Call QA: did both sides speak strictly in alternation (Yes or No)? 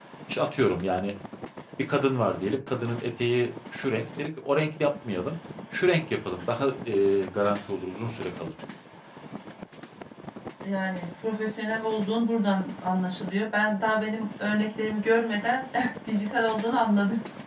Yes